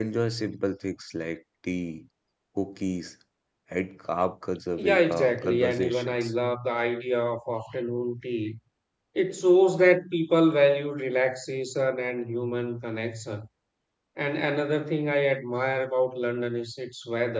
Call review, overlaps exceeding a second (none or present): present